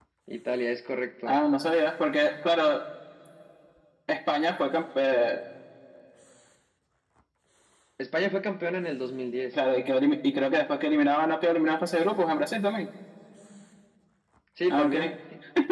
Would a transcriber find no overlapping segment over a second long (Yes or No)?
Yes